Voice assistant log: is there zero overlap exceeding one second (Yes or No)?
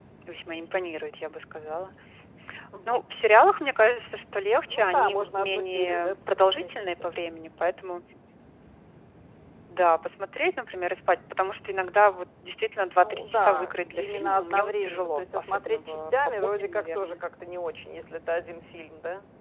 No